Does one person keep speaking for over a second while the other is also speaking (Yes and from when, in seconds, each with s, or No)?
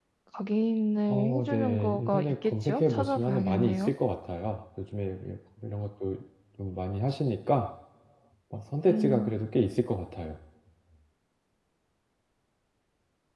Yes, from 1.4 s